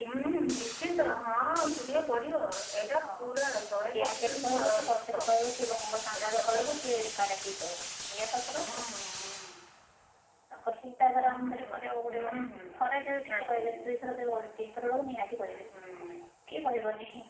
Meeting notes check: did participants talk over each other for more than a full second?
Yes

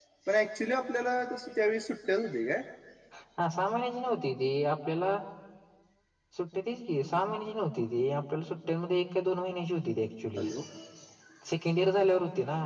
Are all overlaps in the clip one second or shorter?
Yes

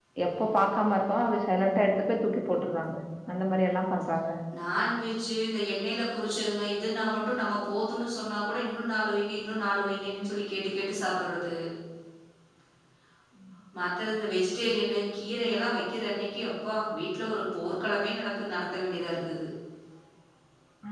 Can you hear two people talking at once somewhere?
No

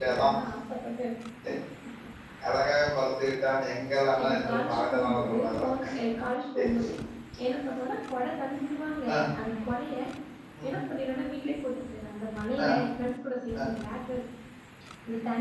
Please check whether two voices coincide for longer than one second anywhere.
Yes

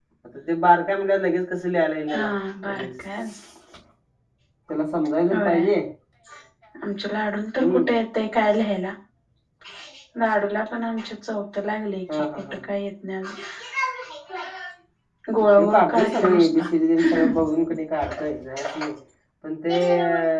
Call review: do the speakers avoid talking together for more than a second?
No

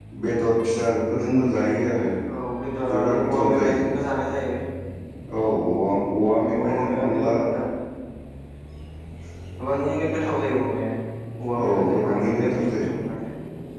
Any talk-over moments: Yes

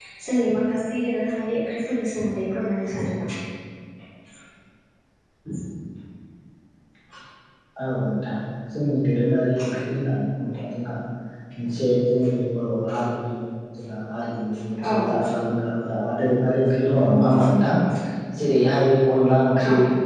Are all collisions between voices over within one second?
Yes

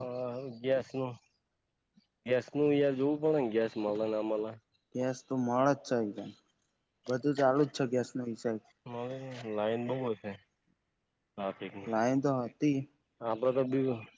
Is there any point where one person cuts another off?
No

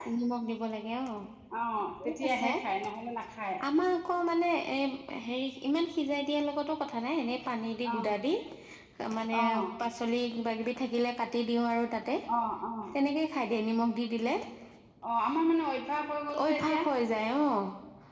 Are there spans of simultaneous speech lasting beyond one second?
No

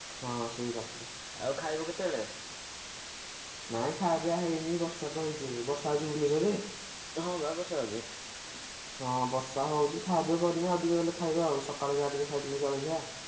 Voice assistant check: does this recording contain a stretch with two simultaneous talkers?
No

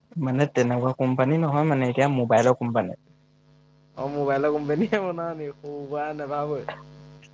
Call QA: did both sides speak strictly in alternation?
Yes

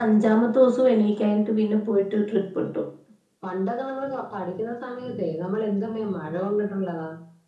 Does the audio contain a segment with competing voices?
No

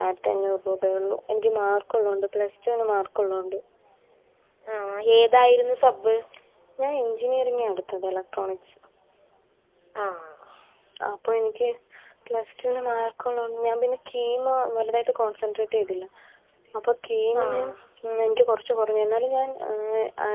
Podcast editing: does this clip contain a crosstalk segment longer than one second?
No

